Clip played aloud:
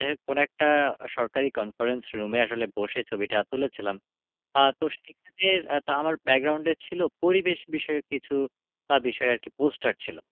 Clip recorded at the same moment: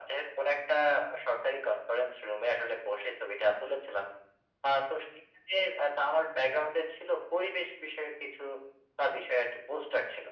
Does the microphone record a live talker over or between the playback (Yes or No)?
No